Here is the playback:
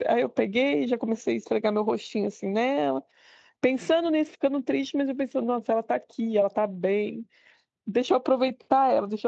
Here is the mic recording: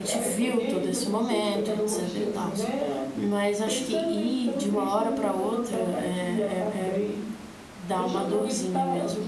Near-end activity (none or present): present